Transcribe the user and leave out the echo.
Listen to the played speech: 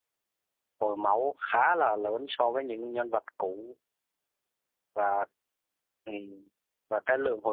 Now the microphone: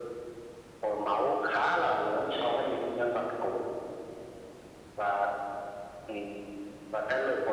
none

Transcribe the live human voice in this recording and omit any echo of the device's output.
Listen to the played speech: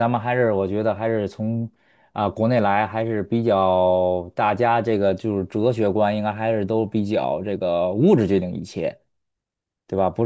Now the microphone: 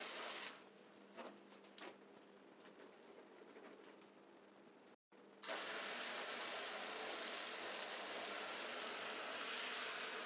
none

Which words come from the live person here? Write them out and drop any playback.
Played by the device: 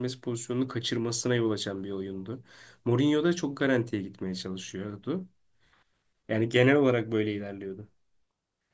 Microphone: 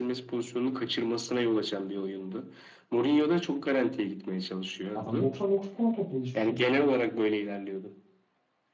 Adam 99 puan topladı hiçbir şey olmasın.

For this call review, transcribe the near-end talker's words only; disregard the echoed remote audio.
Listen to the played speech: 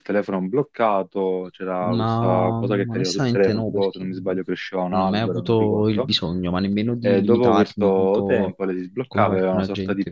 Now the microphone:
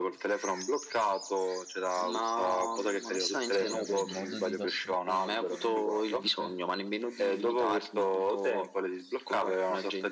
sì, sì, vabbè, il modo di passare il tempo lo trova sempre.

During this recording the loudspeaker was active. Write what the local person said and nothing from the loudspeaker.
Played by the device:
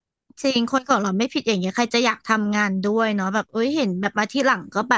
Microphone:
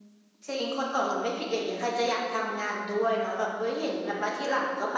none

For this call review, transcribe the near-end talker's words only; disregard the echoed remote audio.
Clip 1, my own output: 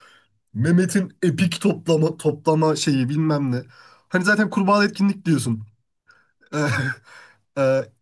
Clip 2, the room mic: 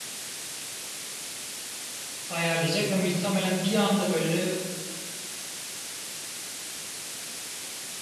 ayarlayacak ve muhtemelen bir anda böyle

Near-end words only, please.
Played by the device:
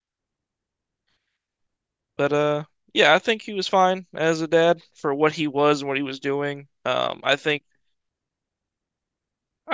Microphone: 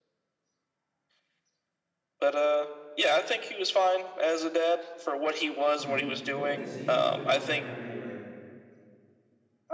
Mm. What disease did their mother have anyway?

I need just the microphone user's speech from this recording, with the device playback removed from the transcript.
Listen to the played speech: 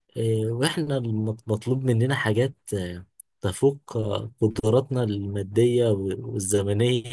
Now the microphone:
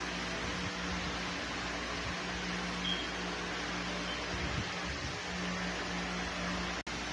none

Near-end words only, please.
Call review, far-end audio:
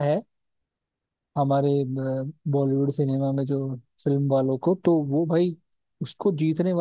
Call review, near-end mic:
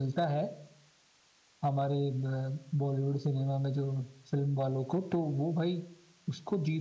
none

